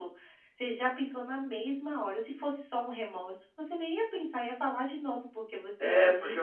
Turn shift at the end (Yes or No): Yes